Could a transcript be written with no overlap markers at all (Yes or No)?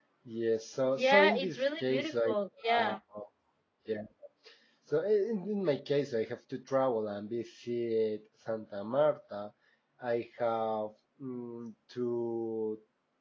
No